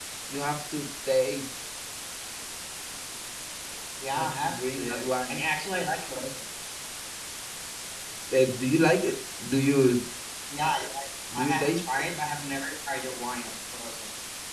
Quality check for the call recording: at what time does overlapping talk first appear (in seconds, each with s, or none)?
4.2 s